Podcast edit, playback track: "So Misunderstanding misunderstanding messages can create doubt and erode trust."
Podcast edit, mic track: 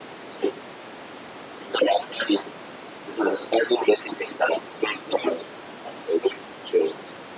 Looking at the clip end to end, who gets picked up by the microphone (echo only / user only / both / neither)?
echo only